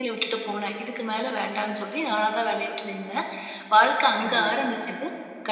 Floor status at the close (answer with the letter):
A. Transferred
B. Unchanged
B